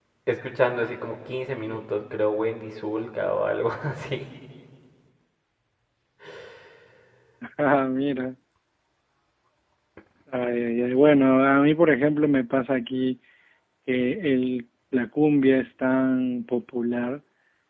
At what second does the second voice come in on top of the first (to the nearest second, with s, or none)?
none